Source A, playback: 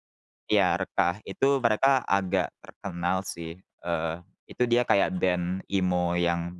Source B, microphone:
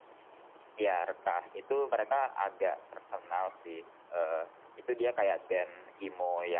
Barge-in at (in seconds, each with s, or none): none